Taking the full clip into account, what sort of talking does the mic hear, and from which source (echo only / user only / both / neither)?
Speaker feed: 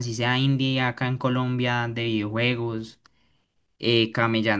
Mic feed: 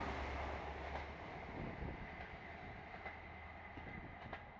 neither